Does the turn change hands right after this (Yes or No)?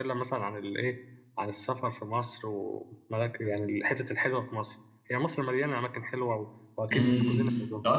Yes